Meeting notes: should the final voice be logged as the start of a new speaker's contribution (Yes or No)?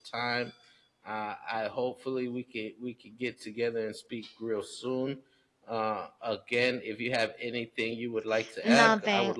Yes